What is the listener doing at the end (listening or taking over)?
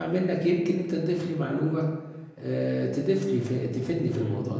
taking over